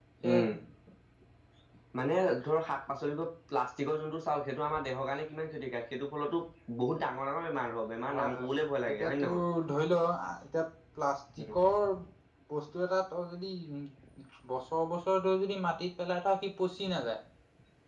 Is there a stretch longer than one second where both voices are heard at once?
No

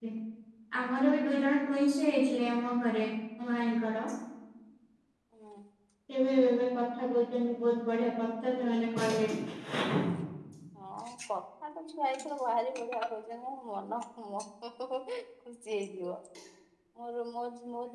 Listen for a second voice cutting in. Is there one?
No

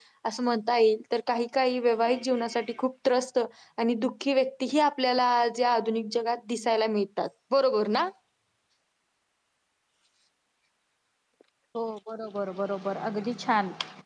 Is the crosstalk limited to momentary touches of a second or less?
Yes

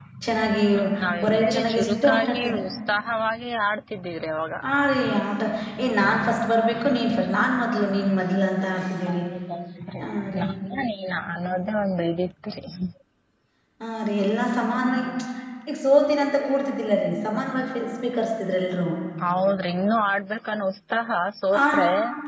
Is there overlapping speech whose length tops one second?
Yes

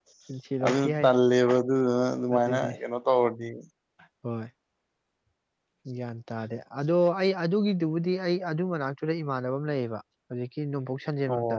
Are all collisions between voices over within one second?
Yes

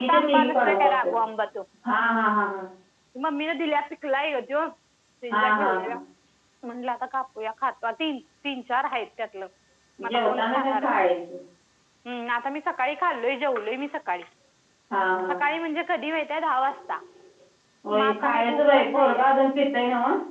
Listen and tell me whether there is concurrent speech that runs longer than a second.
Yes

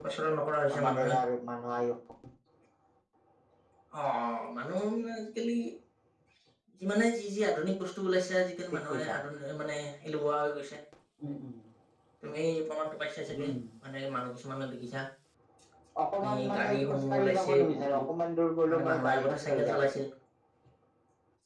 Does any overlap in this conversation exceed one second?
Yes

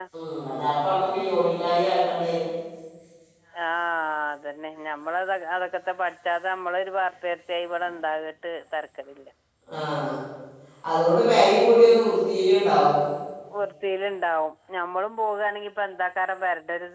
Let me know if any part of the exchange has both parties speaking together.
No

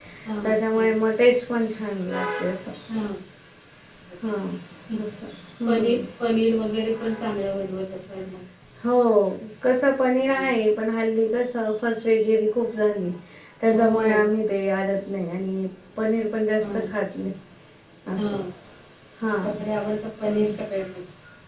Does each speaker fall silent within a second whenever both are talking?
Yes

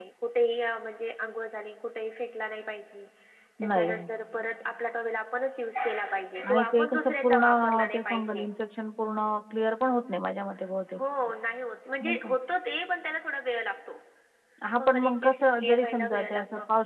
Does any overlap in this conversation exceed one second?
Yes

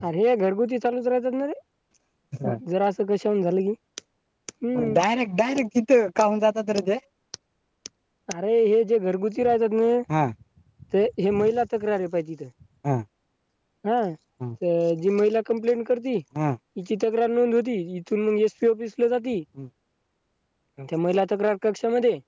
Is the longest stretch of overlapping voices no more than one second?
Yes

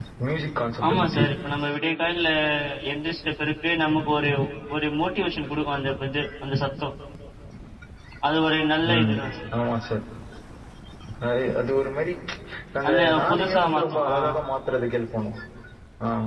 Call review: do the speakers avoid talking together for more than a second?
No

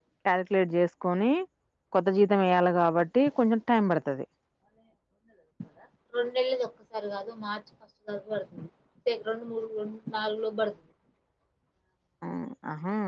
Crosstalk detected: No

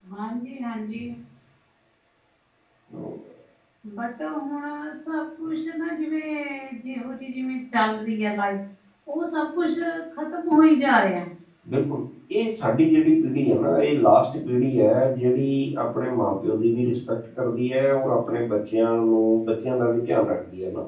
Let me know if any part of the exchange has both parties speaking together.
No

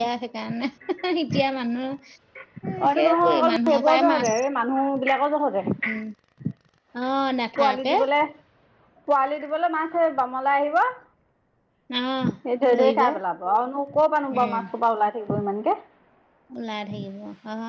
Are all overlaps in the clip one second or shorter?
No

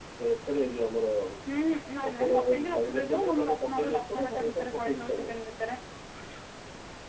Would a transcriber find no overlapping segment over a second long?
No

